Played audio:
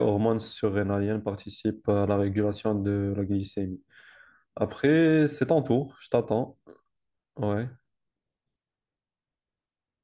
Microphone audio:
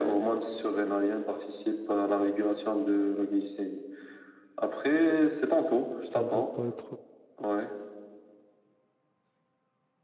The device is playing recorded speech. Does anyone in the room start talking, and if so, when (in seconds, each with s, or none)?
6.1 s